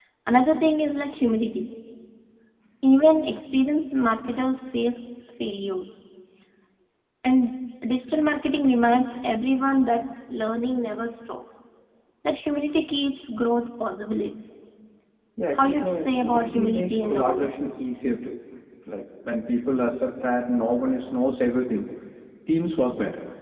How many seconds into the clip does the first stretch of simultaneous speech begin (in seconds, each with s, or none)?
15.5 s